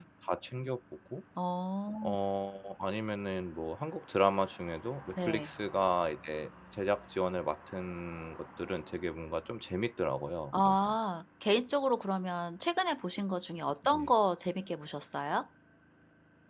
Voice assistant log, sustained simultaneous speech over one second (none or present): none